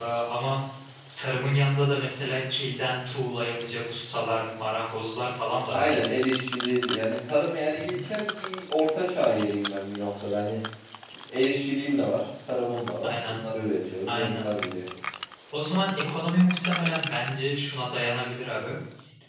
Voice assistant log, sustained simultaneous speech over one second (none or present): none